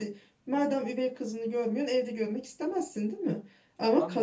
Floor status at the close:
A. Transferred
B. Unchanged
B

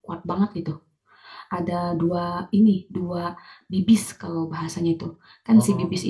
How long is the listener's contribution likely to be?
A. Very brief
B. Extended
A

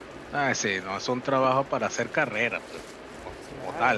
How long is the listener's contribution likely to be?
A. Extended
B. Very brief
A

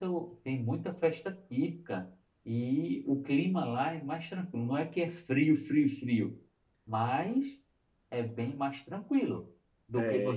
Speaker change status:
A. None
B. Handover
B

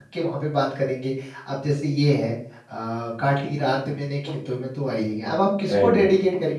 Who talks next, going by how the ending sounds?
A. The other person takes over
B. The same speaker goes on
B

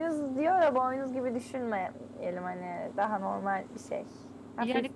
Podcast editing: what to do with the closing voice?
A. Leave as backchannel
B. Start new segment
B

